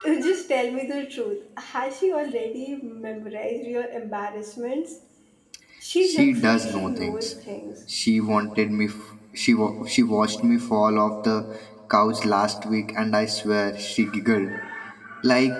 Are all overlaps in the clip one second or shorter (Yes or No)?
No